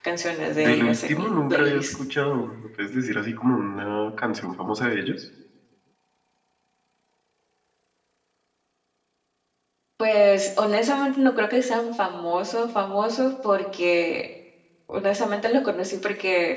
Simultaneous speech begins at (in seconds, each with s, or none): 0.6 s